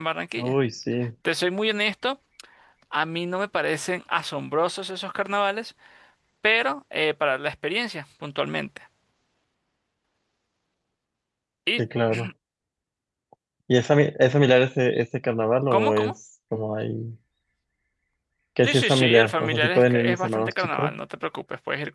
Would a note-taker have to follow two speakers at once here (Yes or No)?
Yes